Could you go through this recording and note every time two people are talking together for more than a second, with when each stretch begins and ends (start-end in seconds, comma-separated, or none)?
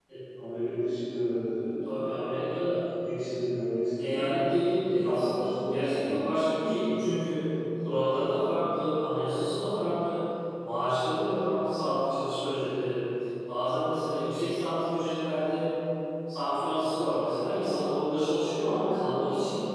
4.8-6.1